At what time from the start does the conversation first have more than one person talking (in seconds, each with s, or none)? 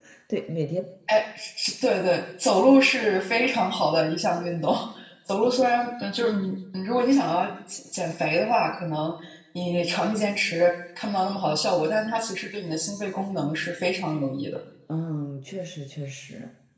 none